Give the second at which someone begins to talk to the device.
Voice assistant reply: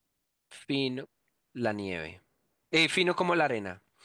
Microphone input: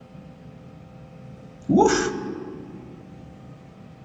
1.7 s

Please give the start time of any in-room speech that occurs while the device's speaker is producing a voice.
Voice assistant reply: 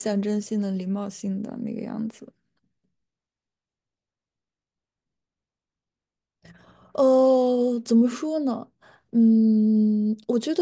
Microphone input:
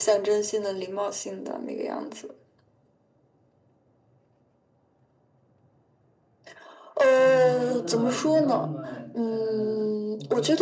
7.1 s

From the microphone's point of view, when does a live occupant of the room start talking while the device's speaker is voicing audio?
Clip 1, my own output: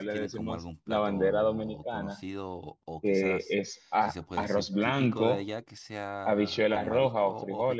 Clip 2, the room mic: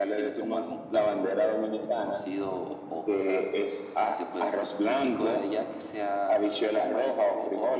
none

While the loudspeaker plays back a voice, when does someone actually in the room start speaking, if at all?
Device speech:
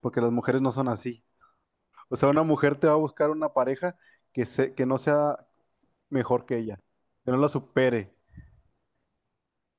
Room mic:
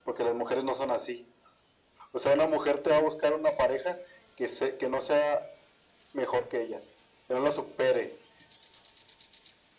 none

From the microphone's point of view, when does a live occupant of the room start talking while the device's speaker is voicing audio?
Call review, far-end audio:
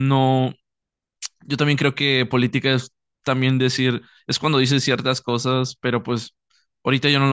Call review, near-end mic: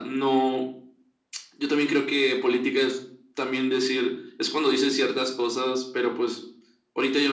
none

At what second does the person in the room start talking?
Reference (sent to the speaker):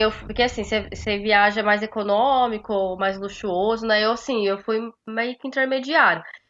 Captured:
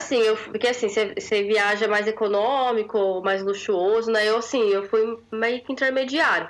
none

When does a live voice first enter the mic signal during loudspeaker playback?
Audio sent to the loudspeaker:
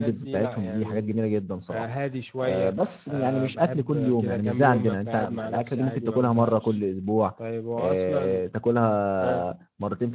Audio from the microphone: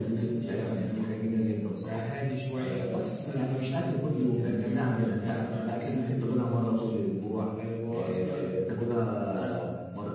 none

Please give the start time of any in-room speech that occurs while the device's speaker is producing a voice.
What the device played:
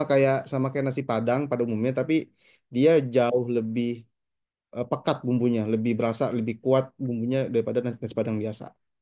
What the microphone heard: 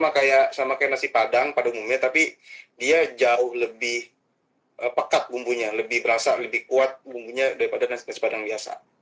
none

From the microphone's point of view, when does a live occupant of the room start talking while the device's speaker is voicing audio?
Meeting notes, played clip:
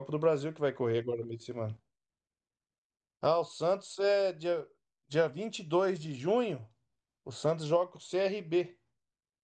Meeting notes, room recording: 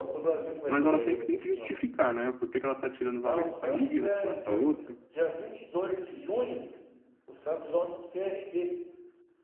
0.7 s

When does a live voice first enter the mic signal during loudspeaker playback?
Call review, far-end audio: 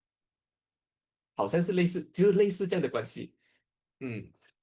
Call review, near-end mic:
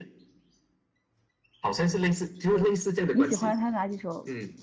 2.5 s

